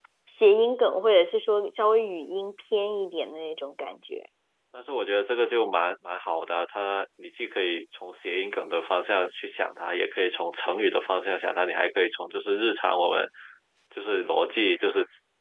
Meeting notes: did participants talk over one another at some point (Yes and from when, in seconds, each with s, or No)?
No